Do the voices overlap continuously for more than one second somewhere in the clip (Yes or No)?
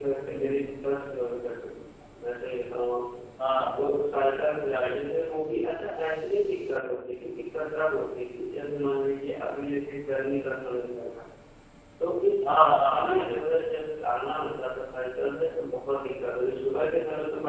No